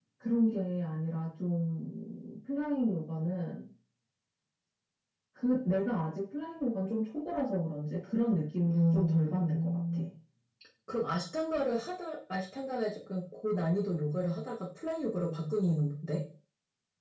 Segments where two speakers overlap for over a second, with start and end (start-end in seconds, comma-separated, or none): 8.7-10.0